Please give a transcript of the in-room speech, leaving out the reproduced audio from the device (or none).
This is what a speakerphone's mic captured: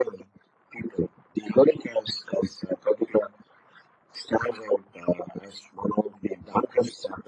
none